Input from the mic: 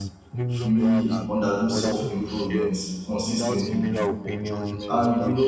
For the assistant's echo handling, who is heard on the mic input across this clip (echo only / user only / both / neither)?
both